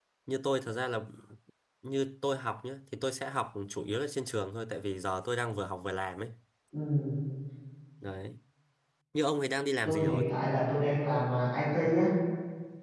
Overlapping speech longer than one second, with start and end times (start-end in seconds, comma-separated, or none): none